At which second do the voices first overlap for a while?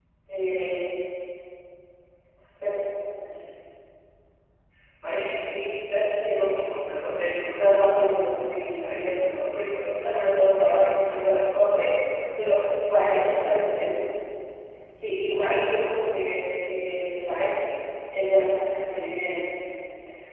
10 s

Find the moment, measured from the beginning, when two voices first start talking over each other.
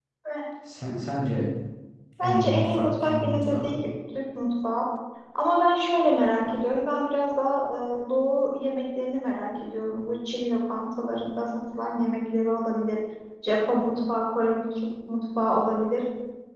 2 s

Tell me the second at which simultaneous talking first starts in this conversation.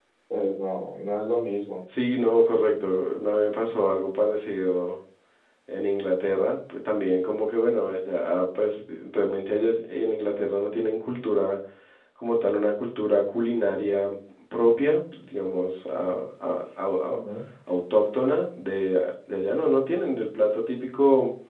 none

